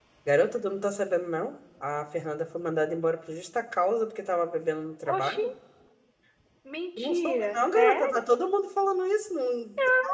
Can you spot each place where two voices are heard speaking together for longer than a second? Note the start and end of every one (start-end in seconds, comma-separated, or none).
7.0-8.2